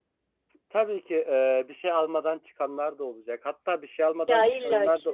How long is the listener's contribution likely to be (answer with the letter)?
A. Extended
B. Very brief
B